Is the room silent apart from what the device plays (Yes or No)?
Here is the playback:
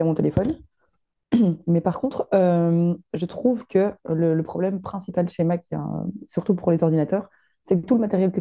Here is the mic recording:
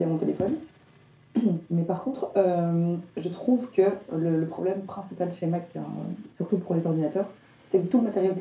Yes